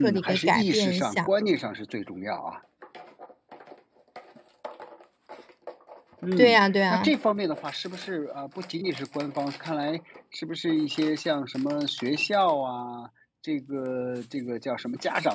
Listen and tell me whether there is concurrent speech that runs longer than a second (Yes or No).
Yes